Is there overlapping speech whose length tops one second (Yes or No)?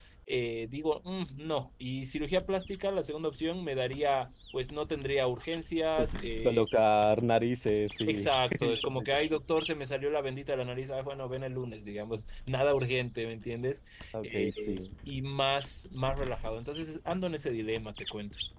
Yes